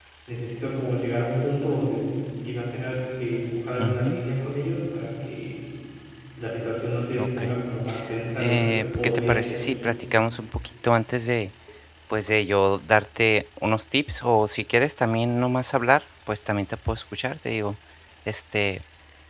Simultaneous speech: Yes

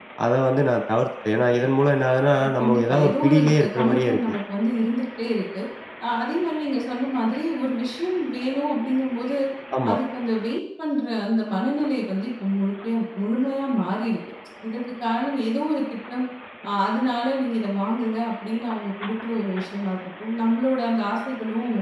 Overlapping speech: Yes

